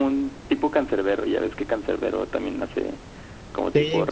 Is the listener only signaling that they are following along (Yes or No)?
No